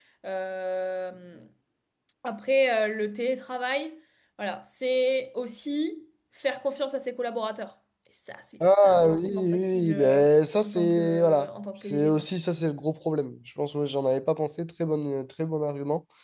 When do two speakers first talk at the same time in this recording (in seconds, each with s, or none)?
8.6 s